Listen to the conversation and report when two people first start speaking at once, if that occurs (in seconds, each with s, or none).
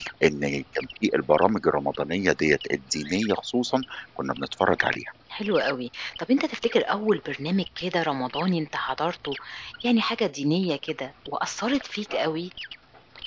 none